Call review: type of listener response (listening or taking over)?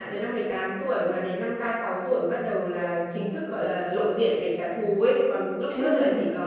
listening